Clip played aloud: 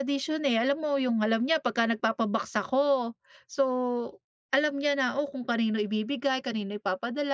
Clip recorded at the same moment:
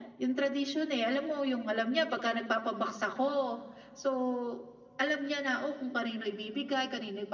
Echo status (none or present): present